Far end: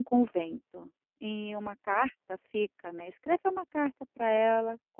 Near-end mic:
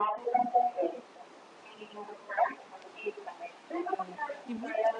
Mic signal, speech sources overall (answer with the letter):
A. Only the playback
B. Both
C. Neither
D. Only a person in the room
B